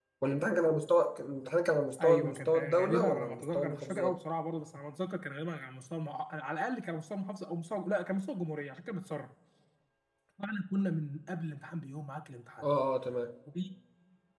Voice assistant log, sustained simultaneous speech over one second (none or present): present